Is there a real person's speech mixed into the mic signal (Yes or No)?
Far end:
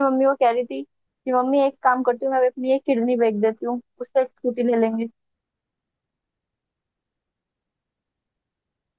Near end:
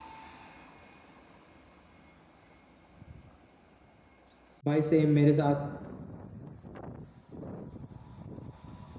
Yes